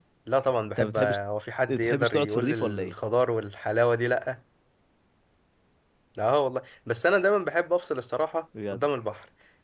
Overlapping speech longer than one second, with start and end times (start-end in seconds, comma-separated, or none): 1.7-3.0